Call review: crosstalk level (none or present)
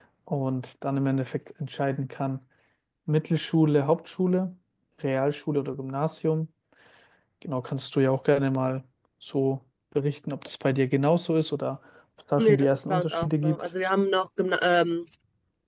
present